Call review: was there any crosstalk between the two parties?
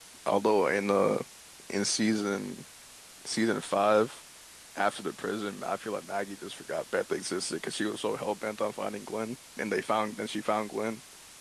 No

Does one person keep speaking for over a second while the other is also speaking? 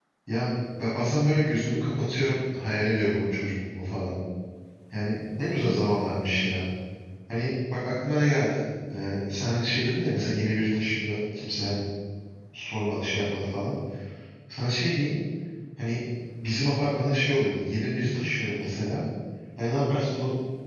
No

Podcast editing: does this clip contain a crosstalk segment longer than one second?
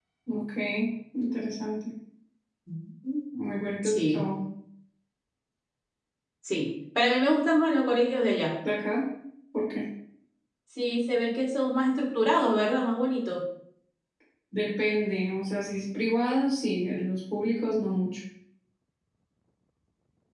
No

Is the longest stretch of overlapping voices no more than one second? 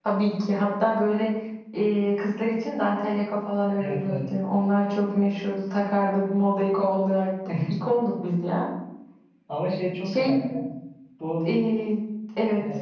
Yes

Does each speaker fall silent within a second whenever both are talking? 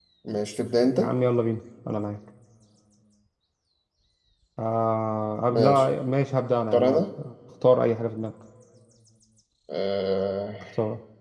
Yes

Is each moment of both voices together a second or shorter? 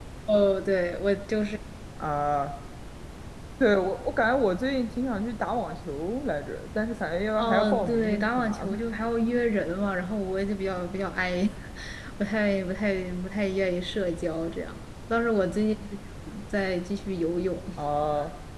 No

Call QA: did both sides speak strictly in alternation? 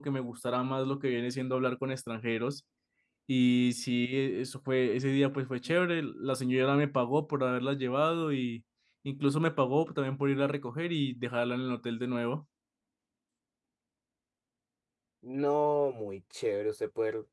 Yes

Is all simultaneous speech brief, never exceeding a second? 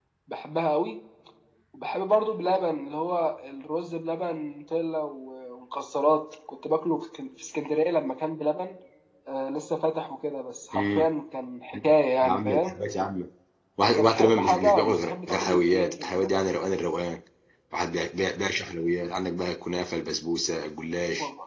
No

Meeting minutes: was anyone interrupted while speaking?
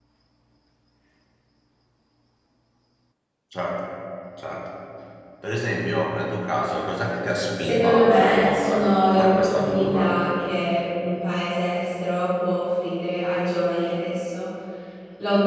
Yes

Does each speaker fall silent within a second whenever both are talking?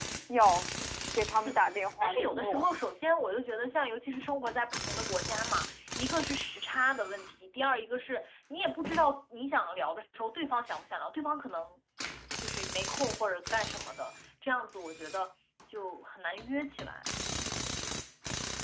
No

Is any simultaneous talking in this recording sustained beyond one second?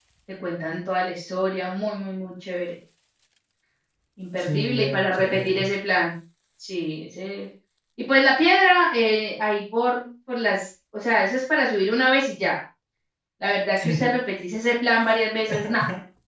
Yes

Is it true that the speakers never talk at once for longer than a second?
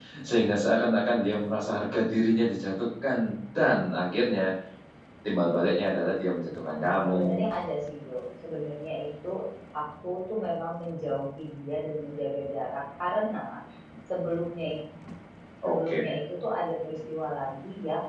Yes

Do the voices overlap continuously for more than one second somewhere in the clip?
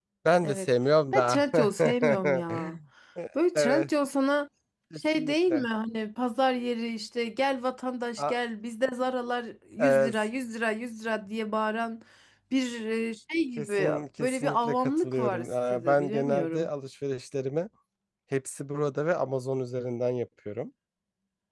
Yes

